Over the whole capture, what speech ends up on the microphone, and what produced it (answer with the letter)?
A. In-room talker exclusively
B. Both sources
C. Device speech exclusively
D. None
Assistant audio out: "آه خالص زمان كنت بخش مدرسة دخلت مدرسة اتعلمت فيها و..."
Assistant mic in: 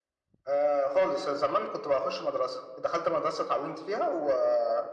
C